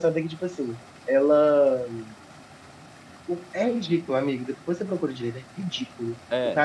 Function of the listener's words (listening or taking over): listening